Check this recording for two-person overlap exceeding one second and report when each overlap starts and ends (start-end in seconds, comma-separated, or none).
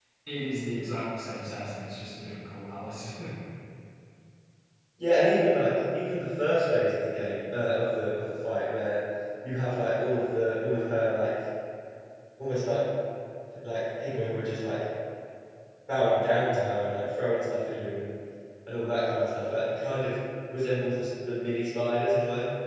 none